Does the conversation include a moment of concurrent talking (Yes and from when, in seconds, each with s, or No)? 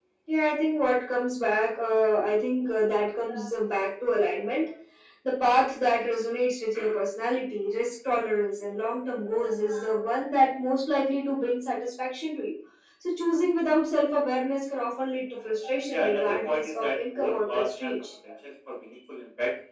Yes, from 15.9 s